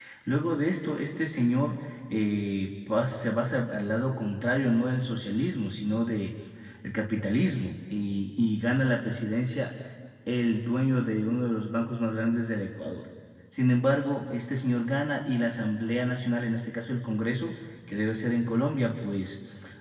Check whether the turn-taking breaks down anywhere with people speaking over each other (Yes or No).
No